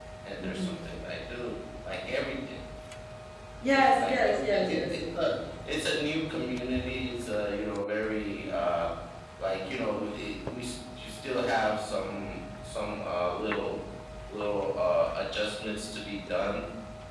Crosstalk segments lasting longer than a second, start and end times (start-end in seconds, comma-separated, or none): 3.7-5.0